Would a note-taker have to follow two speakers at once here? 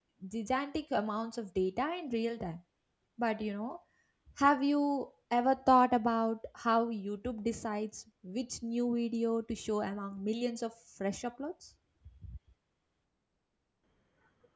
No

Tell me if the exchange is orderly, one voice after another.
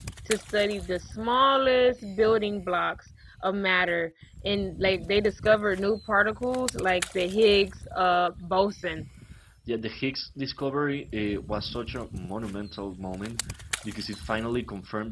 Yes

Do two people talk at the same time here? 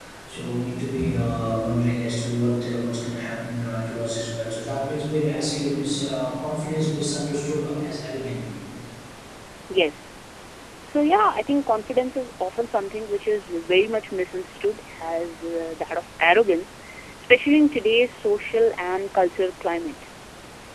No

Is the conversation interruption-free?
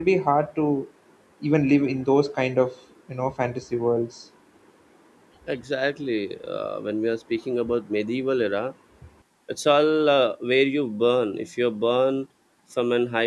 Yes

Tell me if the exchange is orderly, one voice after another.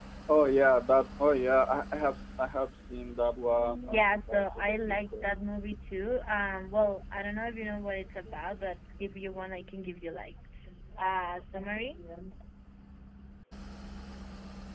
No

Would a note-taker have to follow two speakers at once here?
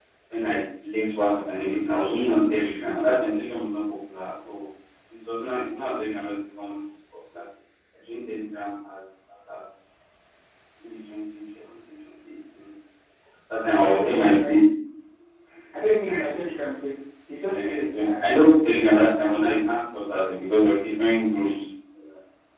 Yes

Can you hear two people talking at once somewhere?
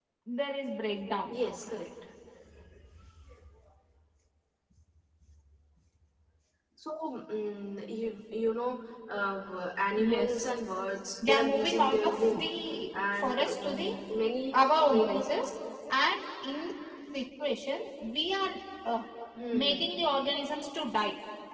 Yes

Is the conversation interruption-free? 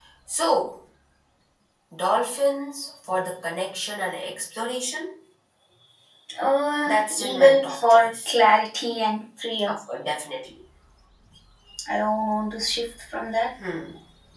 No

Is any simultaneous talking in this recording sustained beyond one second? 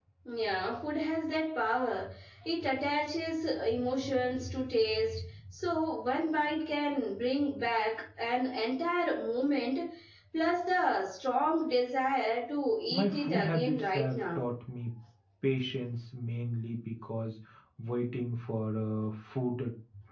Yes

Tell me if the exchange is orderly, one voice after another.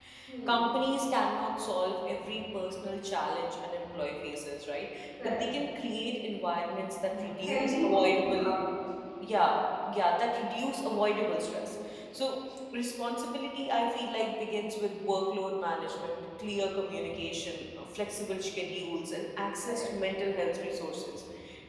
No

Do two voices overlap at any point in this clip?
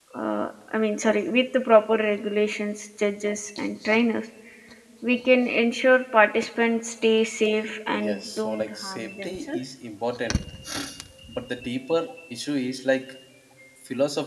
Yes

